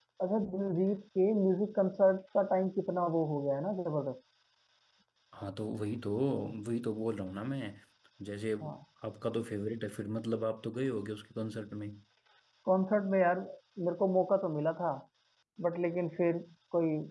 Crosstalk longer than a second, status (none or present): none